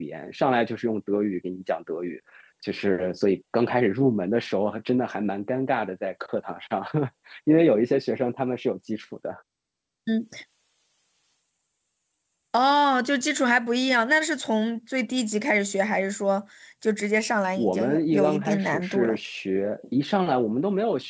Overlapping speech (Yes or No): Yes